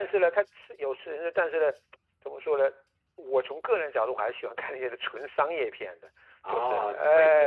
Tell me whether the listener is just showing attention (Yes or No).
No